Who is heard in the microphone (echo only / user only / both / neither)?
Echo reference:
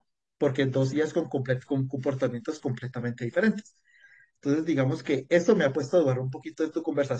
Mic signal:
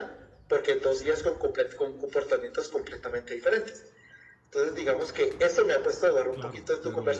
both